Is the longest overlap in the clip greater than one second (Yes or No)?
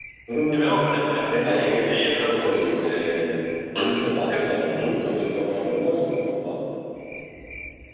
Yes